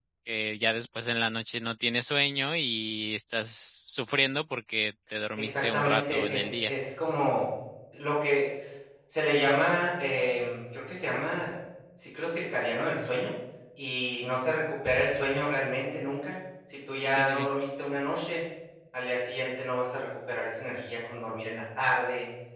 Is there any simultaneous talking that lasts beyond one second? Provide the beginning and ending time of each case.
5.4-6.7

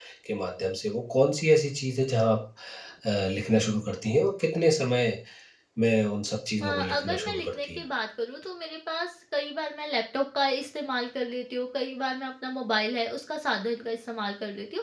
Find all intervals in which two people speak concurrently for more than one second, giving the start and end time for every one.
6.6-7.8

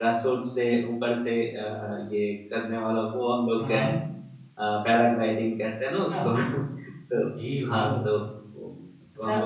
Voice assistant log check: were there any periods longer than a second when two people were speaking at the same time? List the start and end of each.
none

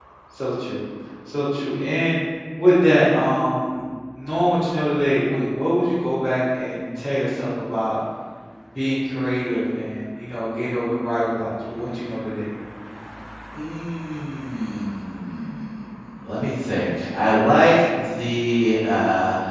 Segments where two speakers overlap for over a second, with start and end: none

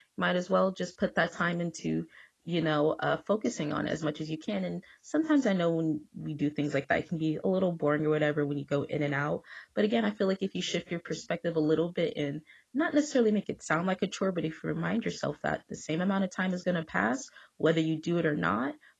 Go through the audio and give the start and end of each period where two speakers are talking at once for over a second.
none

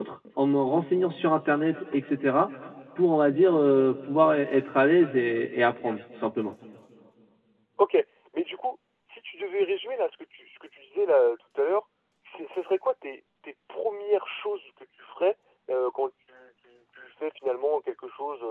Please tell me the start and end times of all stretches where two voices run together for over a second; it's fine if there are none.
none

